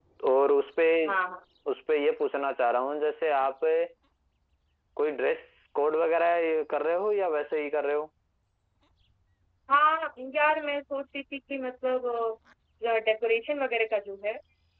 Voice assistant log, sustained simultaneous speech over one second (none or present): none